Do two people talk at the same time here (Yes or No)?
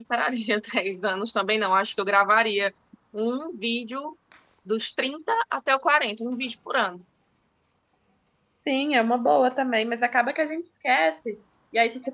No